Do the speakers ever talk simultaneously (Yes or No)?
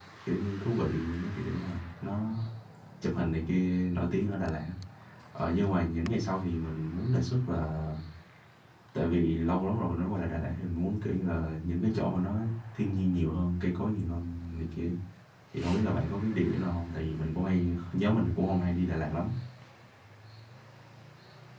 No